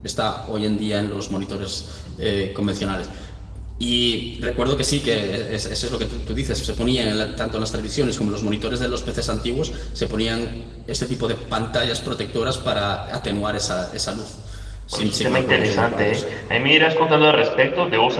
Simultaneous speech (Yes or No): Yes